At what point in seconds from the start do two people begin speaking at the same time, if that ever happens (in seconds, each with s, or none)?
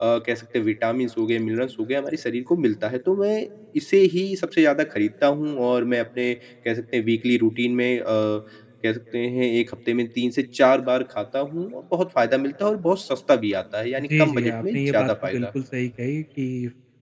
14.0 s